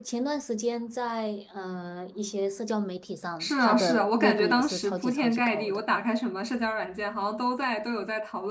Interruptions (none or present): present